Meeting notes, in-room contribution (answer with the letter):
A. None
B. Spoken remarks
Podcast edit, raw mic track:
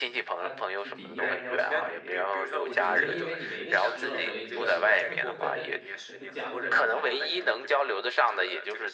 B